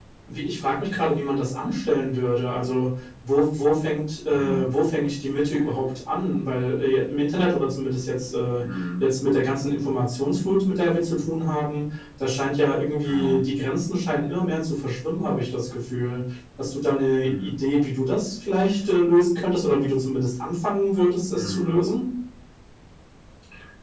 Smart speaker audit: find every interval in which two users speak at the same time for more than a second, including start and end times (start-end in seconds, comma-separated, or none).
none